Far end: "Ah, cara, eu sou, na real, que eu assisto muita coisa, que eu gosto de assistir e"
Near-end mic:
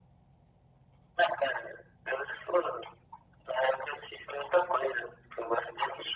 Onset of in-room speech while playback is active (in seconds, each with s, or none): none